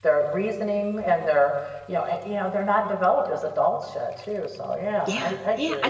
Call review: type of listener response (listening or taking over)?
taking over